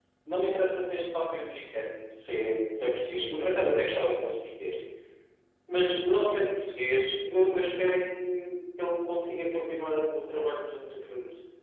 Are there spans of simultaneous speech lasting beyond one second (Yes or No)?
No